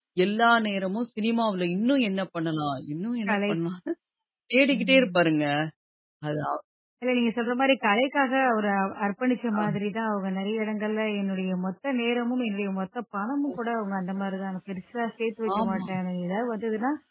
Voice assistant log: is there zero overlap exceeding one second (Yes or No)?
Yes